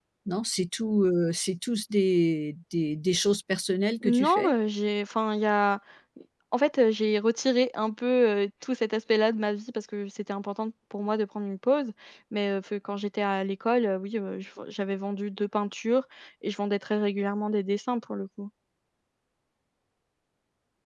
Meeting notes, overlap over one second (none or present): none